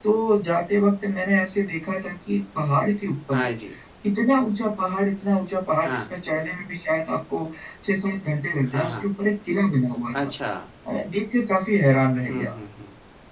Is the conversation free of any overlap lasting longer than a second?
Yes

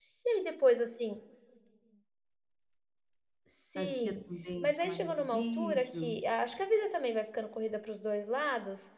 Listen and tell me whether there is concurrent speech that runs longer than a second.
Yes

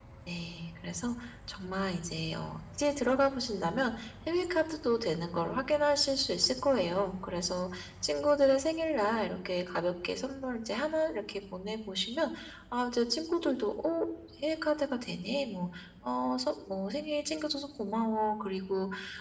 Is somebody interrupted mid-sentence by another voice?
No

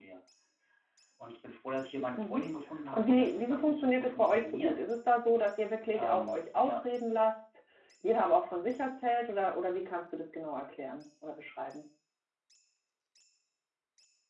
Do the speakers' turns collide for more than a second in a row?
Yes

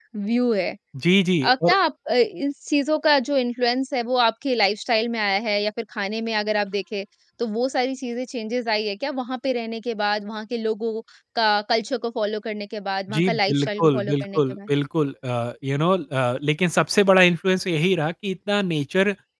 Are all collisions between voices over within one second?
No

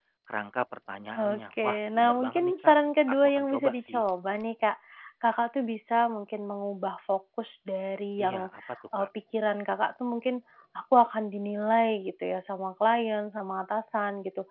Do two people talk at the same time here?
Yes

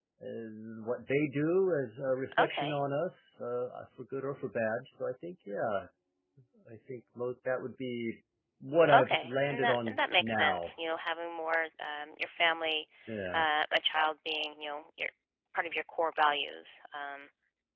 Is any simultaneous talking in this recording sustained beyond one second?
Yes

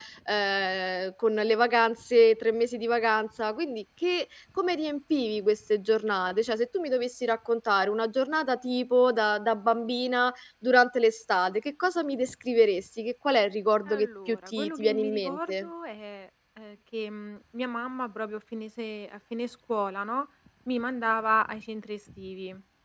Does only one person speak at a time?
No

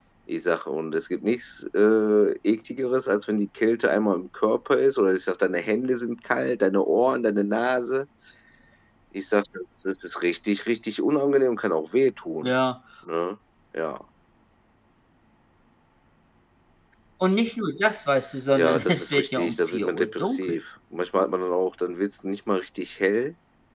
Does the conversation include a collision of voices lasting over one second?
Yes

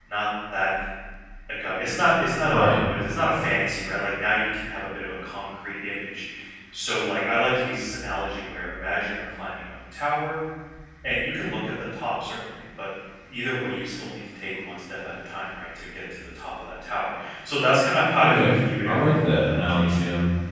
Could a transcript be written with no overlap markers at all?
No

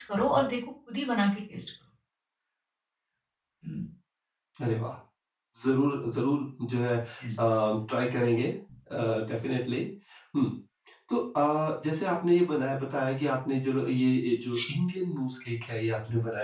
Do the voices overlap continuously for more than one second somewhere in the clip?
No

